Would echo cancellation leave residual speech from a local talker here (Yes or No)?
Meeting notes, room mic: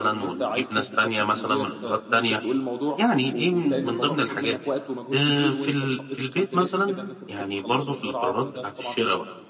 Yes